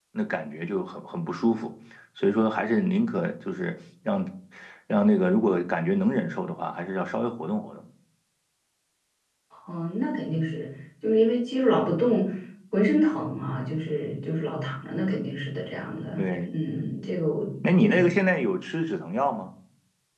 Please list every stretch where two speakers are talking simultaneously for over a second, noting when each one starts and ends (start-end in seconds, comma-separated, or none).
none